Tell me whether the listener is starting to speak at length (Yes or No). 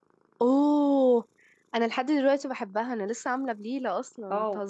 Yes